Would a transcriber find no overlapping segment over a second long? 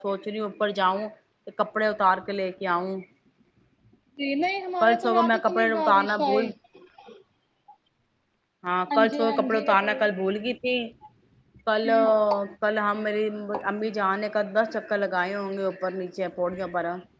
No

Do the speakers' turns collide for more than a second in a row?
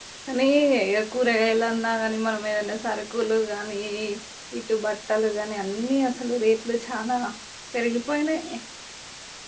No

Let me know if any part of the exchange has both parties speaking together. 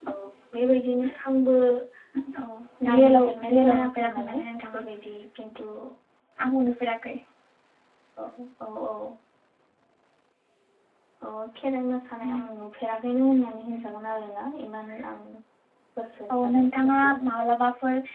Yes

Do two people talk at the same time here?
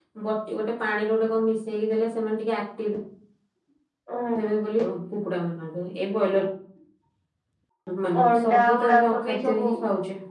Yes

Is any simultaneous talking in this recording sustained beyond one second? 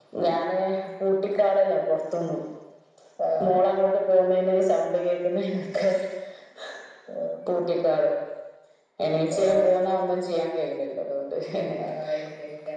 No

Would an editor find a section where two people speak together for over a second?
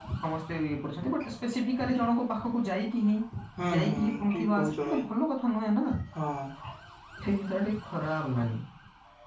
Yes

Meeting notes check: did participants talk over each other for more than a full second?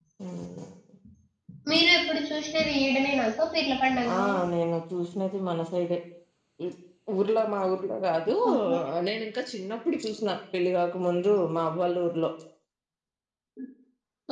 No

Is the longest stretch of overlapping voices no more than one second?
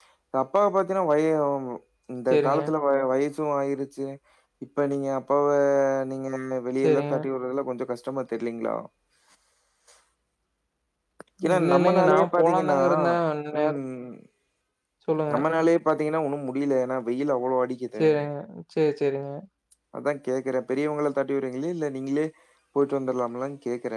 No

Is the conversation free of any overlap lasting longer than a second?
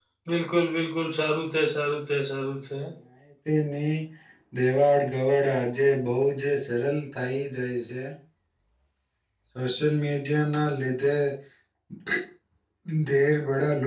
Yes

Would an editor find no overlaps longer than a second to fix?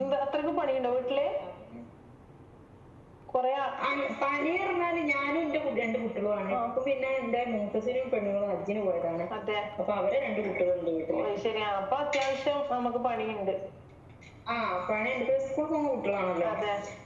Yes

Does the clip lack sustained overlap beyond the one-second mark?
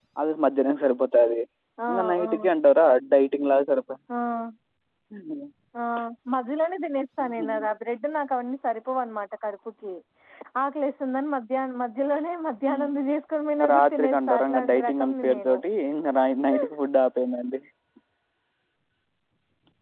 No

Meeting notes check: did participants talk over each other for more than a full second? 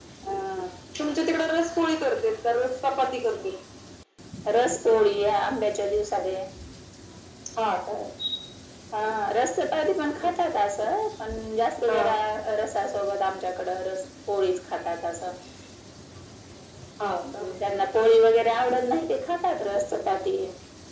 No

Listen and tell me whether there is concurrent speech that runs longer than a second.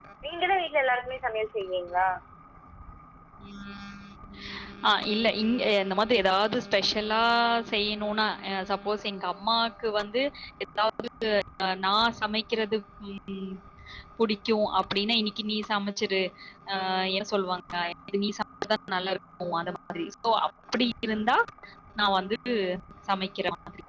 No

